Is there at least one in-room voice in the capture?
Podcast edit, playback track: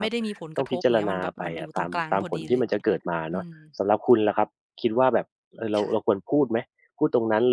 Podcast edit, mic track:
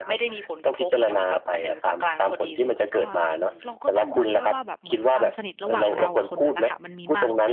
Yes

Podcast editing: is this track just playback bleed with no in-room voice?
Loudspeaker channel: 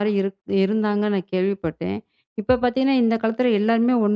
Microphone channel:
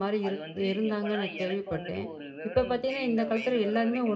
No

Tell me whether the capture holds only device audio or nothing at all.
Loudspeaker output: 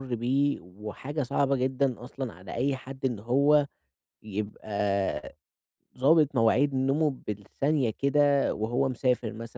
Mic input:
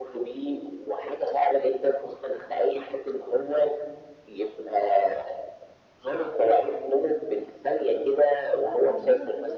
No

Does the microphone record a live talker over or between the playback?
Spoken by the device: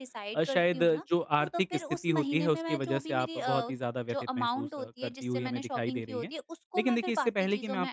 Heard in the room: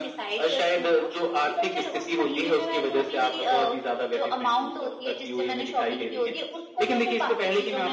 No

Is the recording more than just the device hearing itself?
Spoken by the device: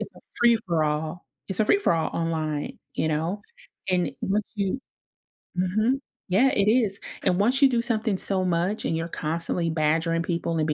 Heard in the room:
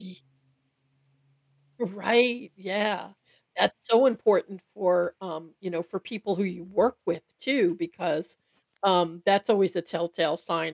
Yes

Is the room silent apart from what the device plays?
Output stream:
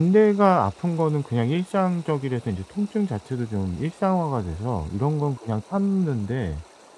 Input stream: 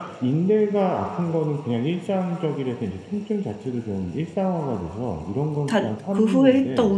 No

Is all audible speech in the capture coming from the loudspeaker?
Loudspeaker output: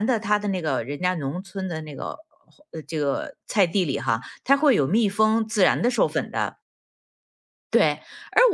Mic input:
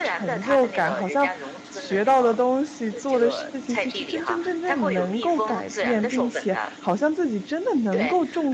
No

